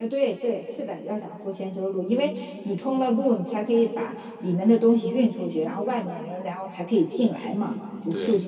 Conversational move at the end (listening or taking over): listening